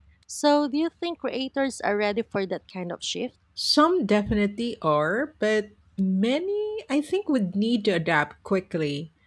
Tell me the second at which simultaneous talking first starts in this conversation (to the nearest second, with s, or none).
none